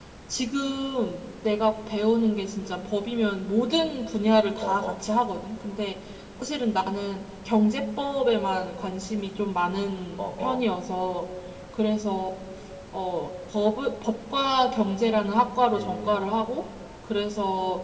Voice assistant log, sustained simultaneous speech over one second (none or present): none